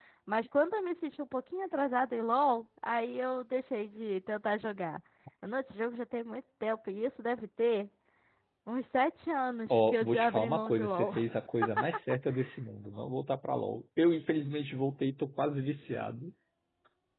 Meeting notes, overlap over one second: present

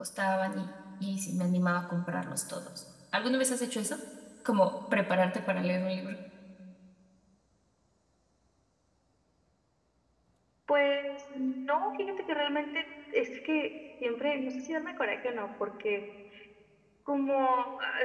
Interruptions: none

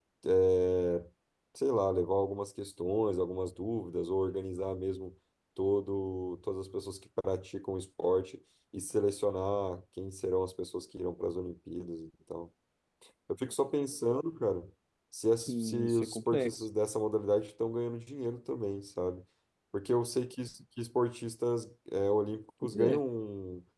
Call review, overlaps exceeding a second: present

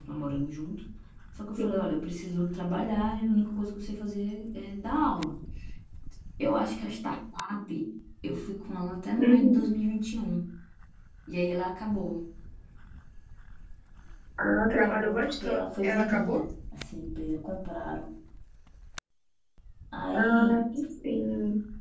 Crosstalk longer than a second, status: present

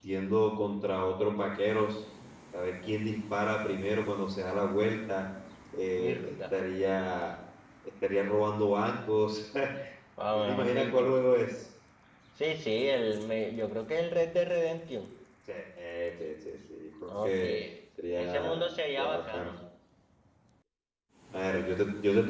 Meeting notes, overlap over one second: present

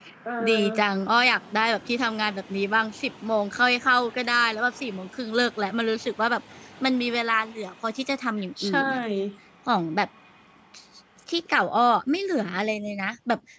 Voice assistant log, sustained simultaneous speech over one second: none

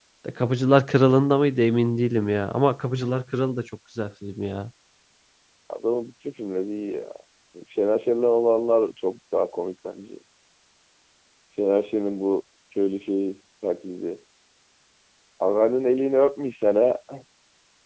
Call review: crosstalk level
none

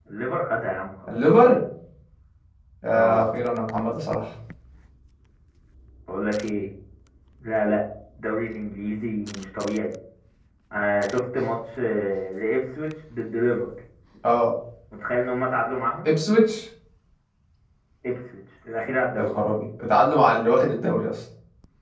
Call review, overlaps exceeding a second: none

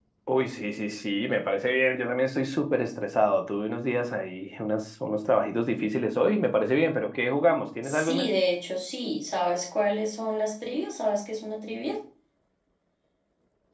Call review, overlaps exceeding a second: none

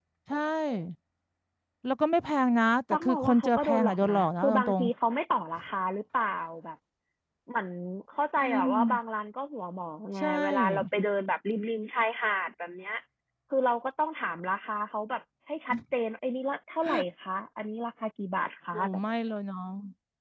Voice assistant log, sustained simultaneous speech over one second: present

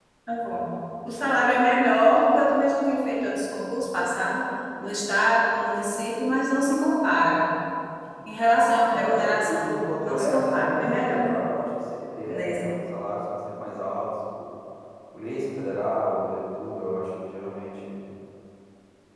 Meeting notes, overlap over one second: present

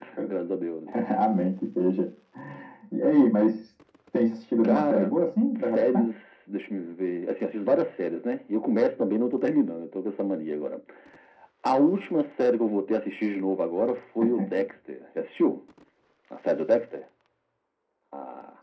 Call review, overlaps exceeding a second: none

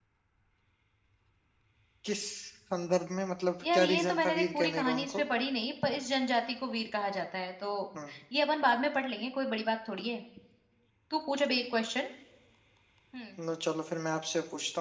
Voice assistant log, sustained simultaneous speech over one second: present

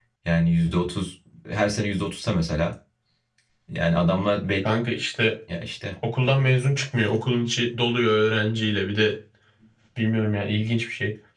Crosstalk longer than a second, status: none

